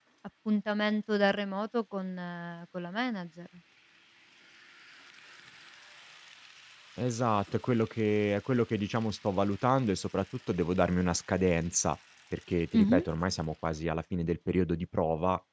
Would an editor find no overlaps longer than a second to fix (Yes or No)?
Yes